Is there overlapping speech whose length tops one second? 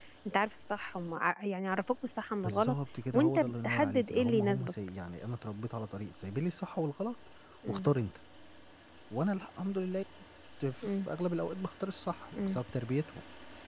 Yes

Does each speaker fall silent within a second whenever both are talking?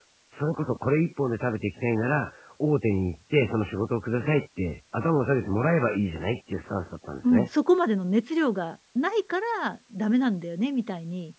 Yes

